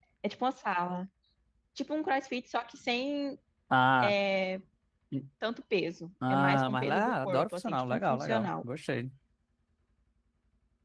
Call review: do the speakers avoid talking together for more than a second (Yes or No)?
No